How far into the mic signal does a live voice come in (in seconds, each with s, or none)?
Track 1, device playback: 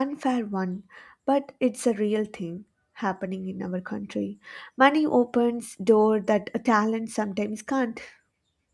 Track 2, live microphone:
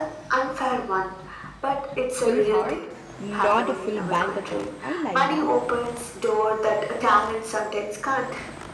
2.1 s